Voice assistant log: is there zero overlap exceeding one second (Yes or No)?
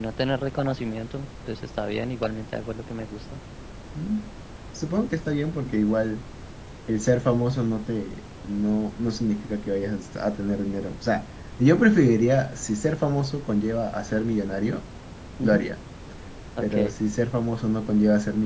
Yes